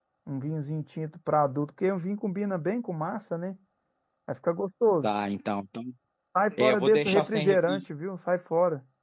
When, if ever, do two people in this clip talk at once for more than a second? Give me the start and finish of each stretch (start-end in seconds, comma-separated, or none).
6.6-7.8